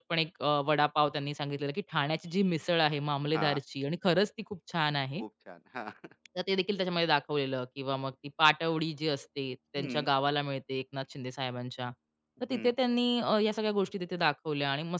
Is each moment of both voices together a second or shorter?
Yes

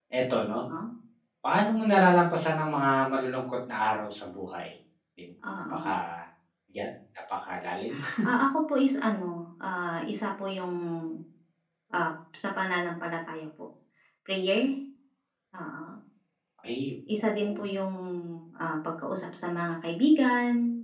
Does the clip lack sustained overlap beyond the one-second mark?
Yes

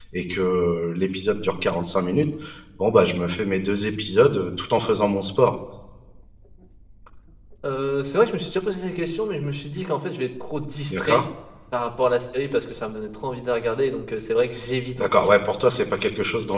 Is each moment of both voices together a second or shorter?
Yes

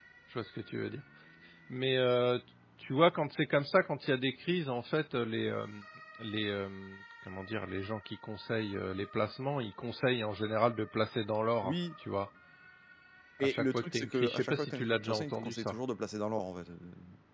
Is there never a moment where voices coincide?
No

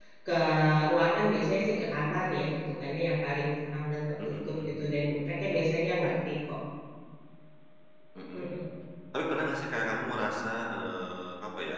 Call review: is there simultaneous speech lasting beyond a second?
No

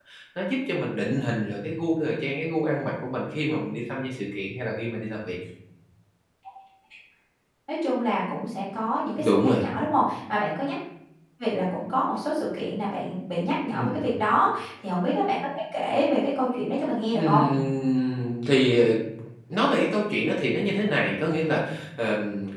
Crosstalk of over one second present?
No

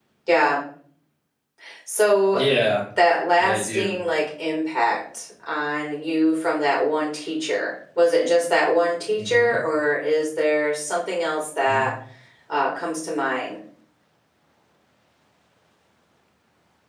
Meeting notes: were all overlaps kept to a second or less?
Yes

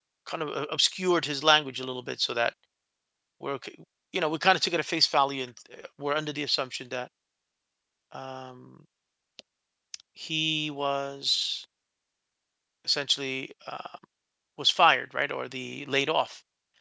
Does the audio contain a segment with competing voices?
No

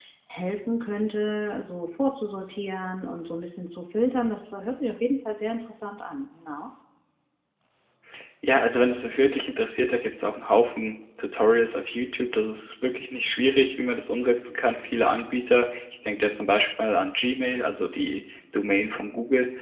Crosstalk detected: No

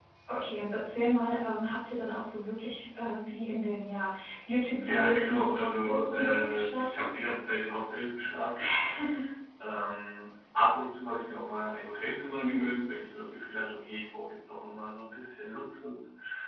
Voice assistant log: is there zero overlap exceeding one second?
No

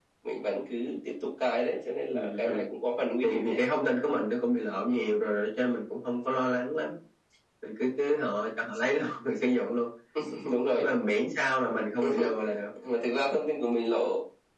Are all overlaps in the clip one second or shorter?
Yes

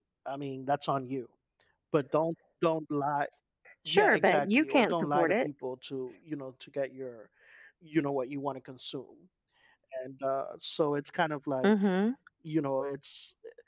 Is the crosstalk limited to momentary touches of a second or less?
No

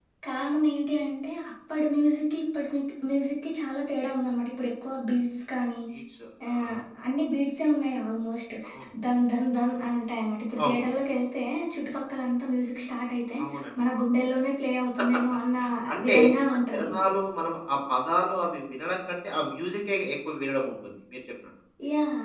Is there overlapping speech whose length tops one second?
No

